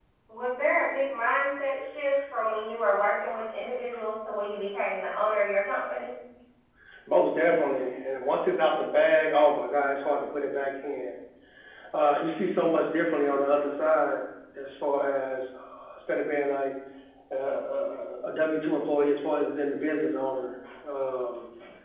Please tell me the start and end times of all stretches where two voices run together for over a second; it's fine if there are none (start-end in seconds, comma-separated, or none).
none